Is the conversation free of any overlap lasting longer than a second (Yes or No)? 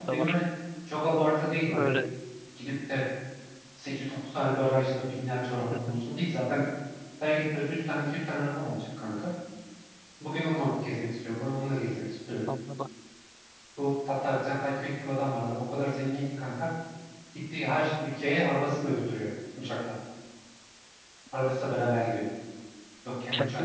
Yes